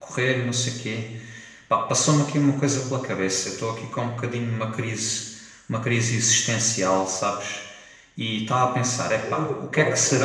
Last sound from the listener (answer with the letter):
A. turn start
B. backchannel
B